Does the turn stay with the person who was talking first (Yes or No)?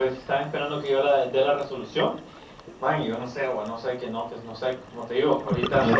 Yes